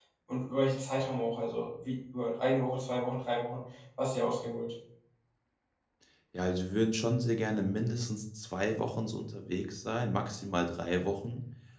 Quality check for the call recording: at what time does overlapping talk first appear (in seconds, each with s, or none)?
none